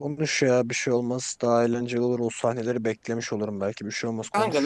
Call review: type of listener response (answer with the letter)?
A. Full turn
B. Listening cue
A